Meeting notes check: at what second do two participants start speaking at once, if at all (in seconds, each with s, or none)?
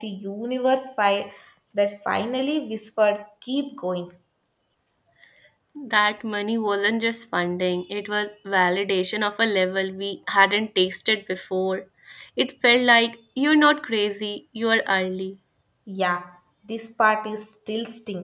none